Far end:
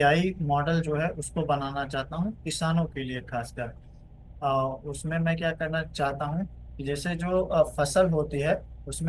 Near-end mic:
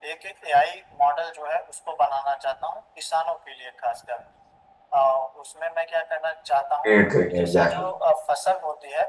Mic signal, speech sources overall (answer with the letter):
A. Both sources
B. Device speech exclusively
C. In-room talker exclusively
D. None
A